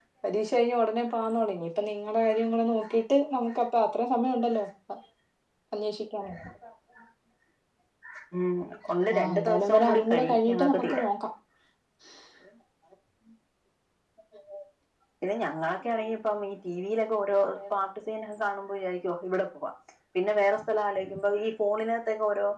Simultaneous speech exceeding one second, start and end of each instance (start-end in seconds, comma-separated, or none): 9.3-11.1